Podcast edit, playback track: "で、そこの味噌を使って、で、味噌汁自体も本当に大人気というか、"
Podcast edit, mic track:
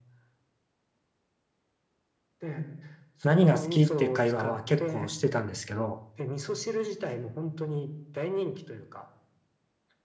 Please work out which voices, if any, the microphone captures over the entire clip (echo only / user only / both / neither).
both